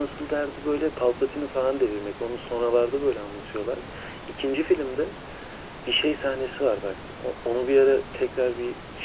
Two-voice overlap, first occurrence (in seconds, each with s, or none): none